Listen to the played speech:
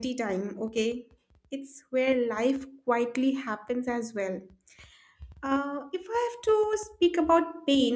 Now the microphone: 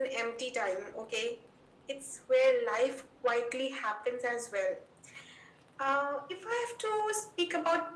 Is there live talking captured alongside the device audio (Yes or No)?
No